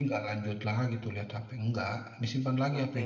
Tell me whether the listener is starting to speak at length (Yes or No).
Yes